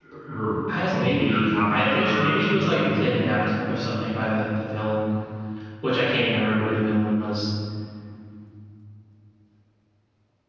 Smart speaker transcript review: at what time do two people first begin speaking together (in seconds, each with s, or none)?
0.9 s